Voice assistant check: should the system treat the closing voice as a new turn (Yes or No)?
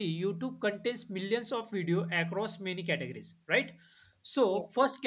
No